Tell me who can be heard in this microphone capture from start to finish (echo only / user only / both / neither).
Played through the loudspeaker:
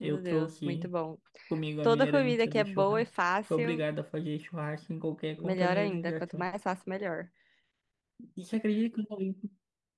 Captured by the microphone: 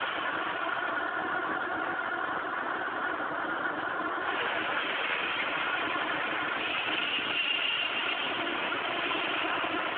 neither